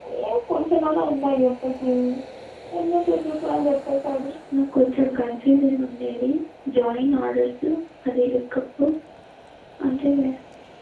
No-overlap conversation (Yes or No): Yes